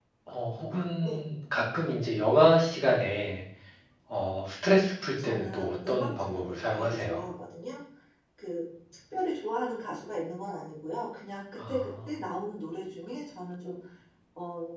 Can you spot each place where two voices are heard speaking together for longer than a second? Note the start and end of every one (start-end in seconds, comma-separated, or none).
5.2-7.2